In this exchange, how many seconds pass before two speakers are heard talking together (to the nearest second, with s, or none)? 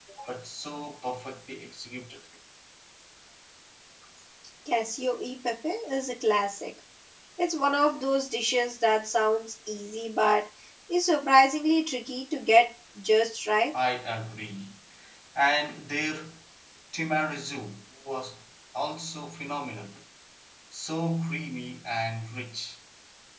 none